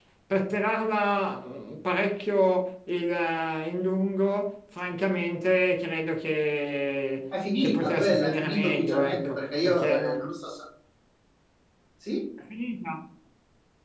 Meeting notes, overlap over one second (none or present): present